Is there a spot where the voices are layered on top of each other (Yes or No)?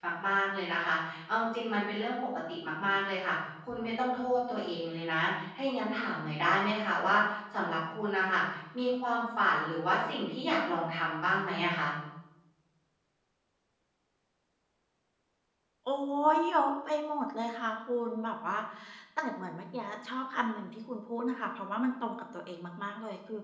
No